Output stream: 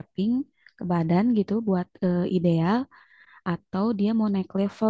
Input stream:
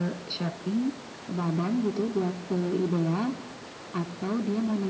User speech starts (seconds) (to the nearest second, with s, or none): none